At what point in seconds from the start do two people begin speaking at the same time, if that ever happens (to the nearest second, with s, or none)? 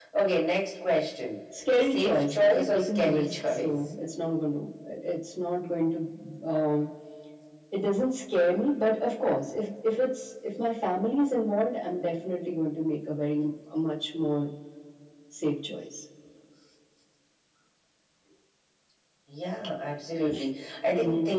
2 s